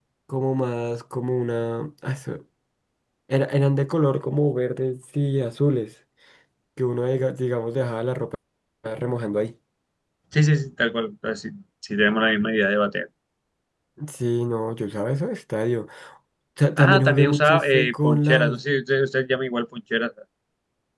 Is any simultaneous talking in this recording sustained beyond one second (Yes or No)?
Yes